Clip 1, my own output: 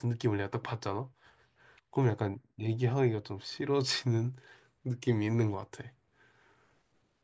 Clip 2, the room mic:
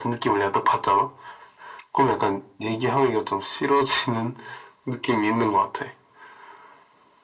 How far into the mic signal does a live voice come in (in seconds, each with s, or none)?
none